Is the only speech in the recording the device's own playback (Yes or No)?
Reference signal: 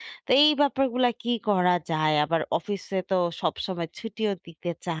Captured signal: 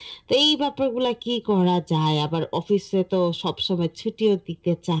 Yes